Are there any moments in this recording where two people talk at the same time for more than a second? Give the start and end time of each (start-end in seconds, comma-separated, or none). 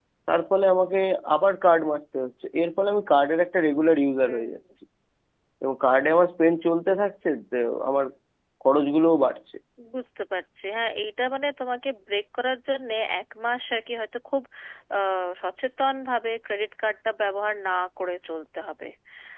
none